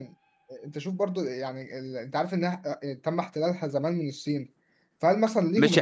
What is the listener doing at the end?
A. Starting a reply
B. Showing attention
A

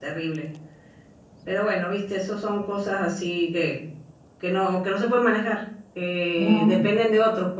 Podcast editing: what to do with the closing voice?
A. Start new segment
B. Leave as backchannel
B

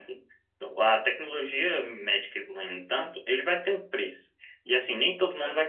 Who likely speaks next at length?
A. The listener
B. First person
B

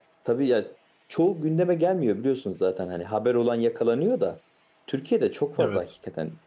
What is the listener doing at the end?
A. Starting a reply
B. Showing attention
B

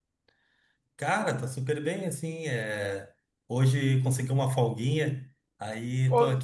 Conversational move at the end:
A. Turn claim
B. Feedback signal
B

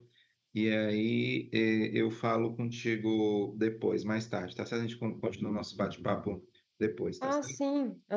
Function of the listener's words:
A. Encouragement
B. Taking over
B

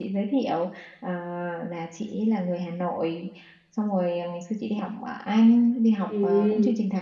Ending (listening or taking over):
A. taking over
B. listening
B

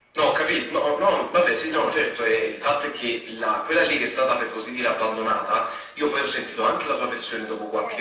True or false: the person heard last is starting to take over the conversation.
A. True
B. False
B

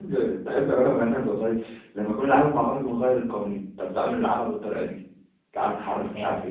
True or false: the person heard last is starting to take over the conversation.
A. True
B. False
A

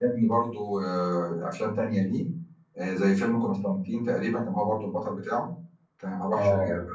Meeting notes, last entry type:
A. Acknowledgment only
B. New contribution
B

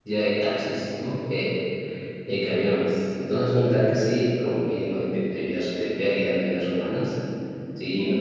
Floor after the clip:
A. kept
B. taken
A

